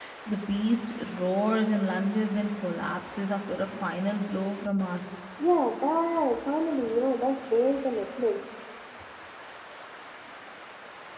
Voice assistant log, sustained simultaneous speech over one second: none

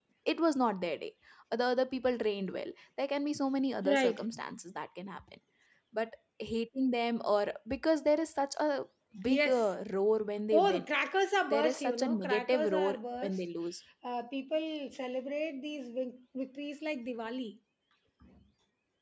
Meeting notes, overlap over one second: present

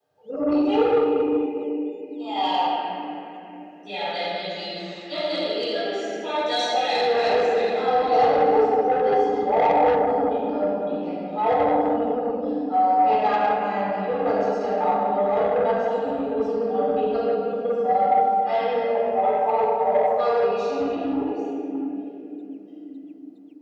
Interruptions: present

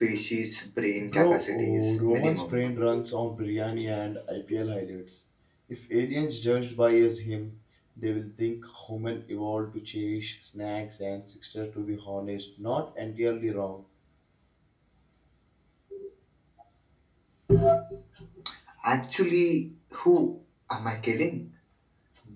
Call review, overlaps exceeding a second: present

